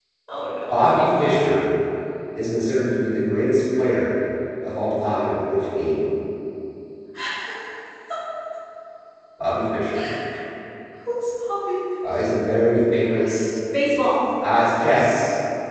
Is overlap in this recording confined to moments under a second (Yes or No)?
Yes